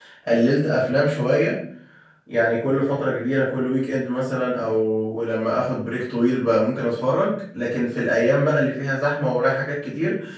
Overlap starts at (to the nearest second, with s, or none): none